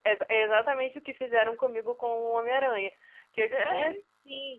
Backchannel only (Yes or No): Yes